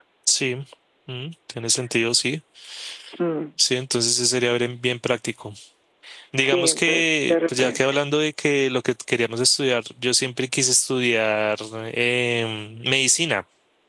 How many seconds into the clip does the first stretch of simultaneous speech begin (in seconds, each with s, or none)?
6.4 s